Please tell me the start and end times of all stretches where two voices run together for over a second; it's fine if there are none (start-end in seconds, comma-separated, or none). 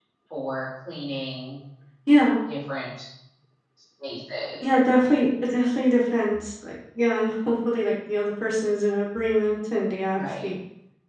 none